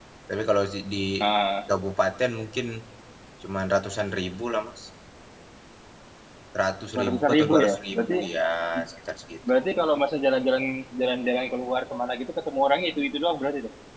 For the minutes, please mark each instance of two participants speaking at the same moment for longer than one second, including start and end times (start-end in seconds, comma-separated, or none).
7.0-8.2